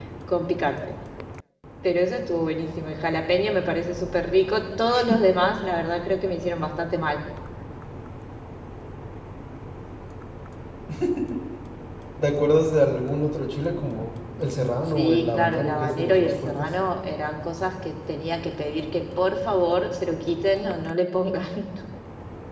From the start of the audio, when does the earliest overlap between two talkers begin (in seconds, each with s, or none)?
14.9 s